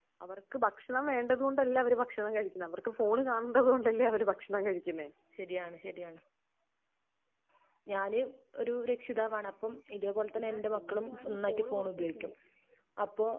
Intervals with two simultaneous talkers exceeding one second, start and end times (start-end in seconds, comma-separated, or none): 10.2-12.3